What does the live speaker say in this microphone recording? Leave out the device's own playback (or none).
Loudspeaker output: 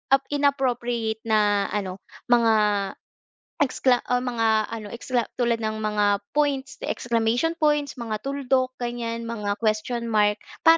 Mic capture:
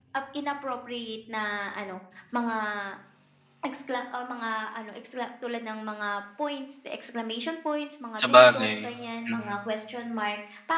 sabagay, mm.